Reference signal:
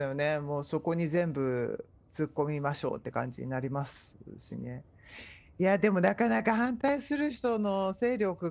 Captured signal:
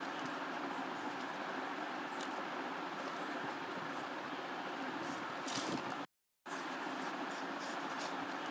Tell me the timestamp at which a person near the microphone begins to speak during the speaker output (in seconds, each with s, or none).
none